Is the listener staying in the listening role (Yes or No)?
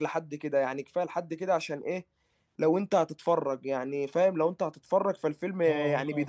No